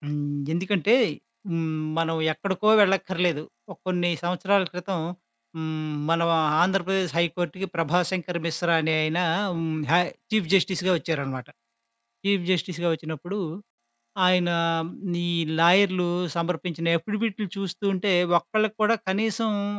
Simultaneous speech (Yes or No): No